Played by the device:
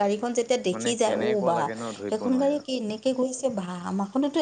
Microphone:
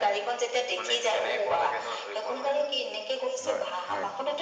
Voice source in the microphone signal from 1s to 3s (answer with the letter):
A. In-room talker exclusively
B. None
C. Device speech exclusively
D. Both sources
C